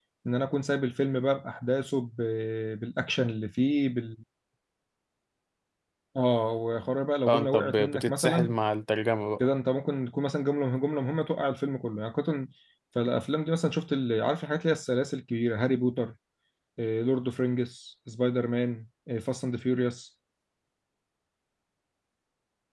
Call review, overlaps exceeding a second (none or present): present